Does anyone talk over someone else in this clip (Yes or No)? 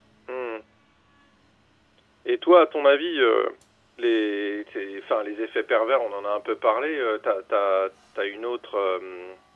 No